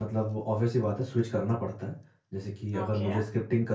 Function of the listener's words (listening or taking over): listening